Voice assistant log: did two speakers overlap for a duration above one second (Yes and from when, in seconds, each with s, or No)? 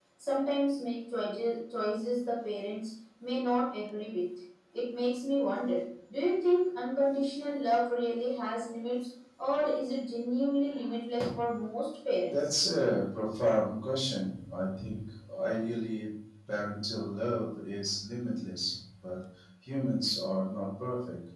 No